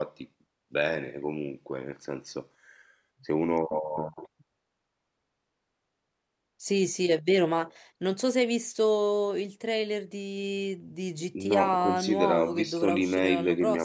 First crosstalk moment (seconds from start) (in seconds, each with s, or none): 11.4 s